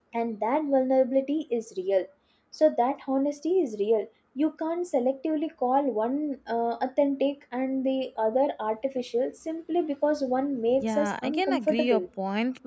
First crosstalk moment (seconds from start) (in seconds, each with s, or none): 10.8 s